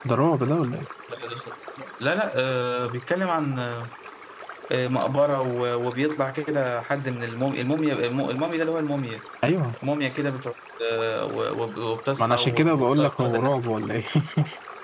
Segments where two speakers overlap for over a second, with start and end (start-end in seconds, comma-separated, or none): 12.2-13.5